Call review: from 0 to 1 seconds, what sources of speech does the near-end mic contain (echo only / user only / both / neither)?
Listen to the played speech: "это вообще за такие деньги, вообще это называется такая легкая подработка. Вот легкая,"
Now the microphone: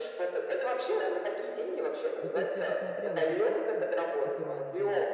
echo only